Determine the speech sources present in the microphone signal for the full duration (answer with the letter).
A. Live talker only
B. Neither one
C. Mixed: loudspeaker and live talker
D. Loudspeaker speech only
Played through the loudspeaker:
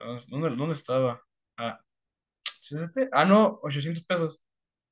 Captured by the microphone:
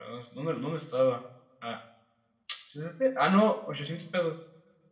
D